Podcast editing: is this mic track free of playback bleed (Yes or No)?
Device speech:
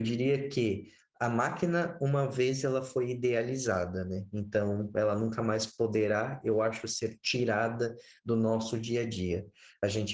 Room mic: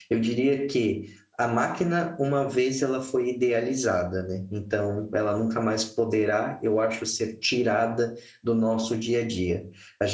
No